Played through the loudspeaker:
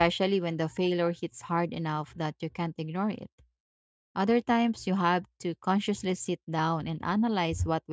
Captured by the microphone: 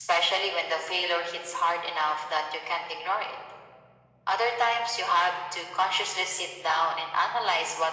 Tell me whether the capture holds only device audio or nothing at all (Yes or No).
Yes